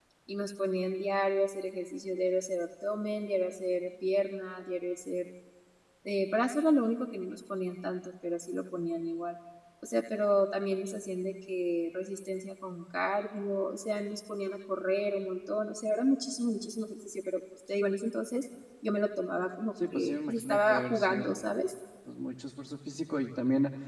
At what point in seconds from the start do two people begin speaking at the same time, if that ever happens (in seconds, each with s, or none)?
19.8 s